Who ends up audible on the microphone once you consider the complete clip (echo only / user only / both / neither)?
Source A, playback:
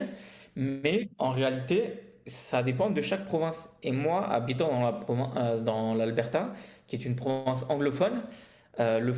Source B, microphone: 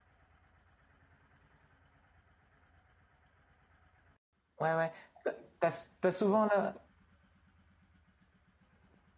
user only